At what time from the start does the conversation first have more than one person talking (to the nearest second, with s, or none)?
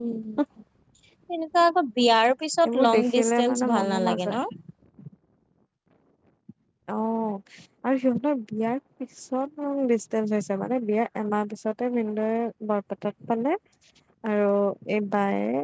3 s